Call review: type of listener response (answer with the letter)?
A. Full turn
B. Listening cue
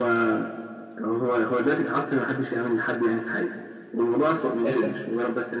B